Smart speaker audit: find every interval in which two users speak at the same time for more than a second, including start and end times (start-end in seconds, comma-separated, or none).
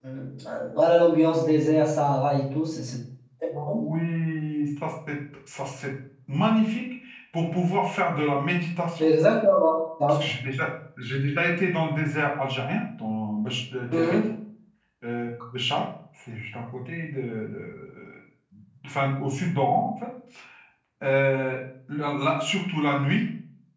none